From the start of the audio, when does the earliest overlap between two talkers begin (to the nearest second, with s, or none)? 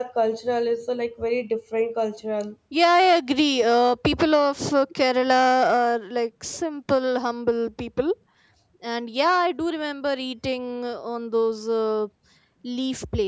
none